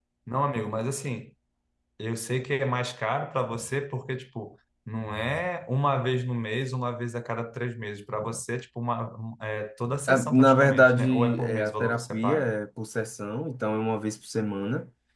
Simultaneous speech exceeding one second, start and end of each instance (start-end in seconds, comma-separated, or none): 10.1-12.5